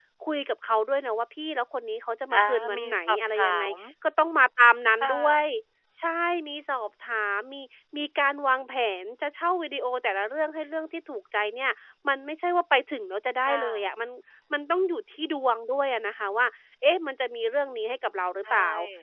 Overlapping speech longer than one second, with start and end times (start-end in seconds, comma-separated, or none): 2.3-3.6